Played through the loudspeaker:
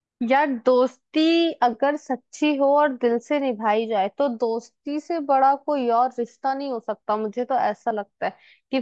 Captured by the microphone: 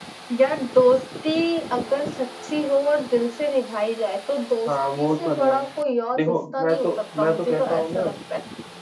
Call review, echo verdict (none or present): present